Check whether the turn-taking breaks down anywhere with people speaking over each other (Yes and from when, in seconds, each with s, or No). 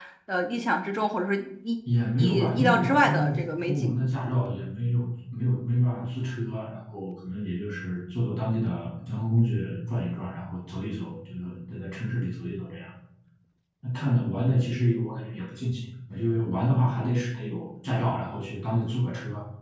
Yes, from 2.2 s